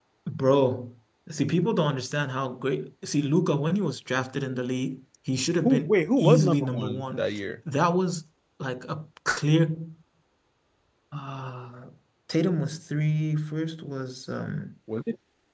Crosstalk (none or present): present